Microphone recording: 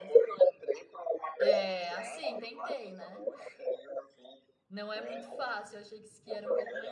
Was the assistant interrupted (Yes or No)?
Yes